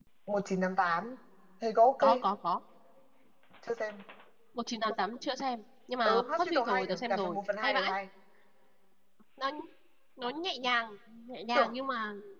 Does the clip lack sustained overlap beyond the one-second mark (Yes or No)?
No